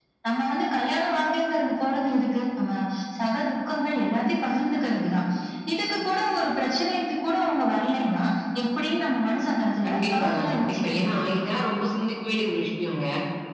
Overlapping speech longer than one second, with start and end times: 9.8-11.2

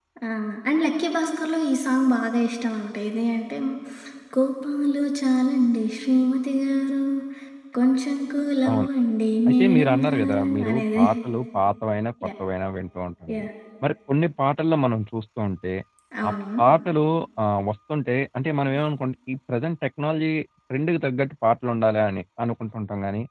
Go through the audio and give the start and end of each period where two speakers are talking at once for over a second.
9.5-11.0

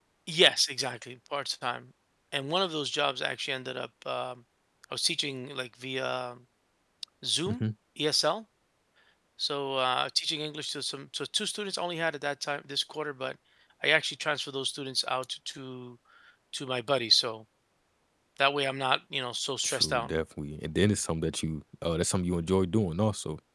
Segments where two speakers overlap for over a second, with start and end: none

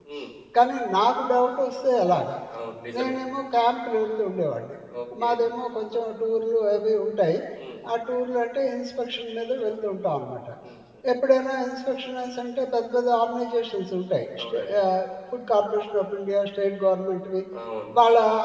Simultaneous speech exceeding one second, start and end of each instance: none

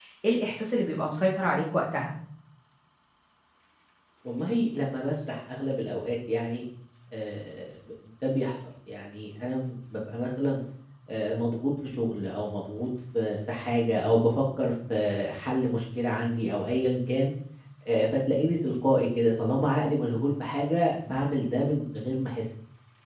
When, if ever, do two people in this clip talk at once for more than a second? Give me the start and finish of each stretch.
none

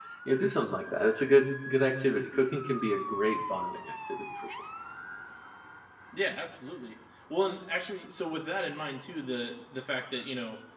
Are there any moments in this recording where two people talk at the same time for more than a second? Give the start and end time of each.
none

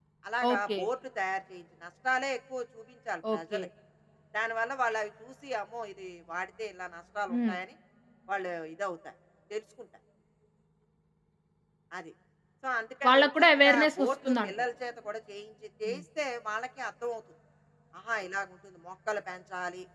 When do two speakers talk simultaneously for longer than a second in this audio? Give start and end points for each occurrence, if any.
13.1-14.5

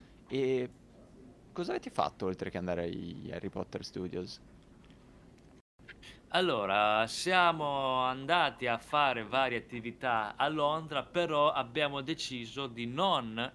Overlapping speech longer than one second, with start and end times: none

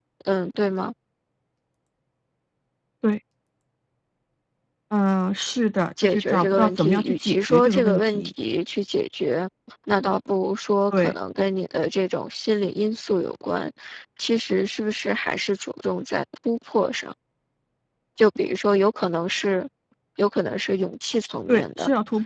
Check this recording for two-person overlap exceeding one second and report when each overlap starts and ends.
6.0-8.3

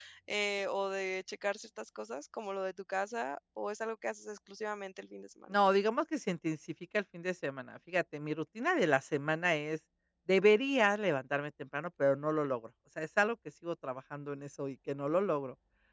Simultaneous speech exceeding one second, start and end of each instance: none

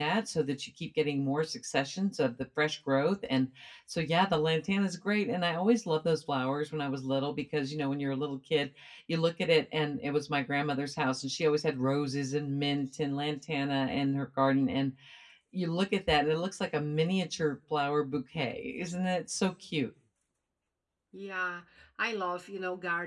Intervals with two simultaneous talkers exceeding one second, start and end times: none

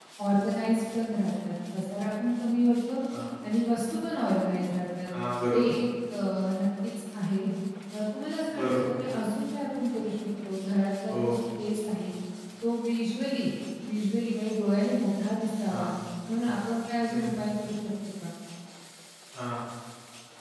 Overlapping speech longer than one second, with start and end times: none

